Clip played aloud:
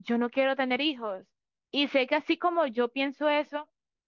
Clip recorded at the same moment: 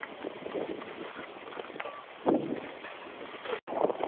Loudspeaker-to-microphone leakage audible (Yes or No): No